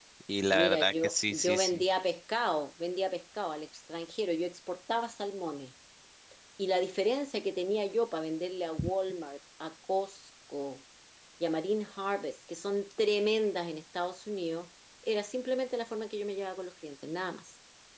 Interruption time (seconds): 0.5 s

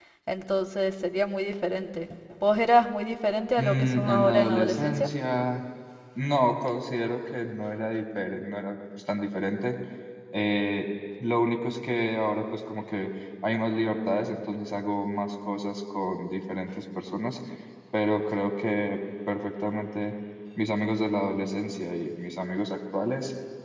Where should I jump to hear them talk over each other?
3.6 s

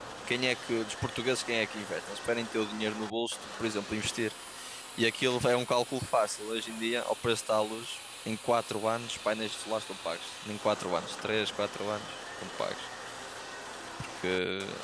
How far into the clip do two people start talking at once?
none

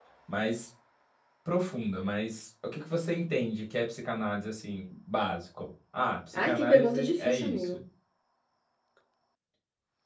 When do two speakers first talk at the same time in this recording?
6.3 s

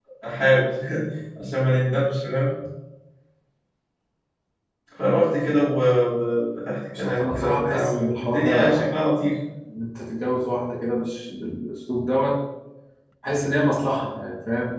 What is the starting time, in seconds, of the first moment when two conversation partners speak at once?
7.0 s

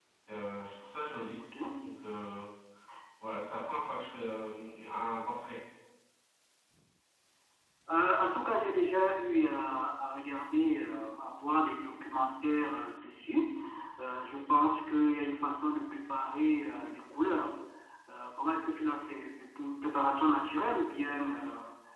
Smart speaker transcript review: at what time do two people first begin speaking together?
none

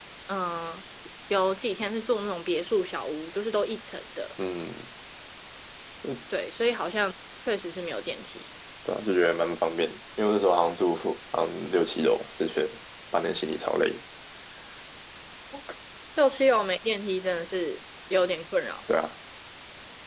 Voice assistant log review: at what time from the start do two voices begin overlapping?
none

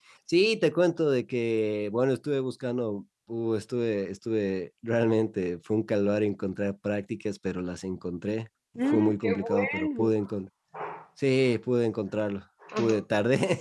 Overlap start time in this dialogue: 8.9 s

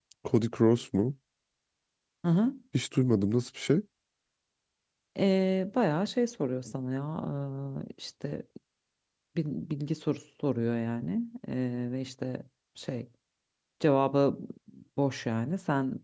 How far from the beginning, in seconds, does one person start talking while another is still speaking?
none

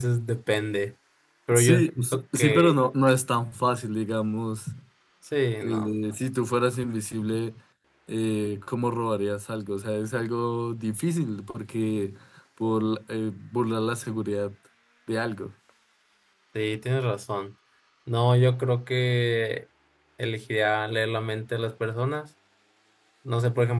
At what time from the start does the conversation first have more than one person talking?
1.6 s

